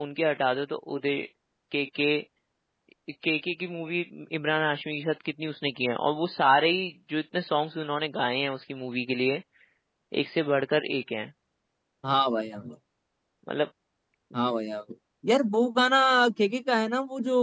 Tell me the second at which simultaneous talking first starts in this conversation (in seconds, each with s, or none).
none